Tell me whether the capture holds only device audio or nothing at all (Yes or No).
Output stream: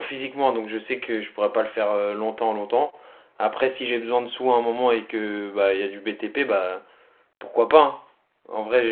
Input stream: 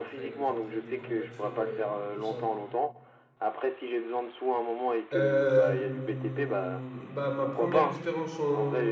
No